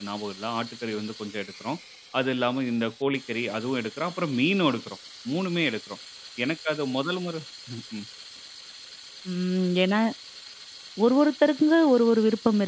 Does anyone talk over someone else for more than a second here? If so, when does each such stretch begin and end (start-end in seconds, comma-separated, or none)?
none